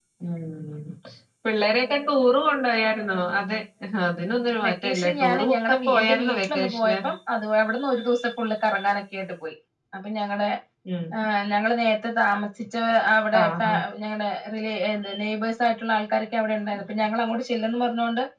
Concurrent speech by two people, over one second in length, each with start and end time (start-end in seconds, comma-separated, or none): 4.7-7.0